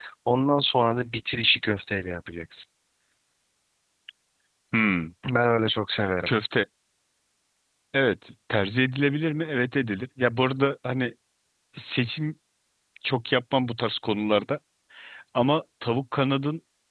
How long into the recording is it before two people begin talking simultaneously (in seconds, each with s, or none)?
none